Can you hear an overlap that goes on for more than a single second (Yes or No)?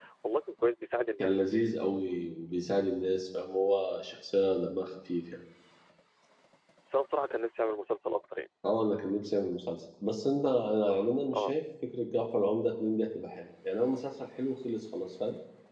No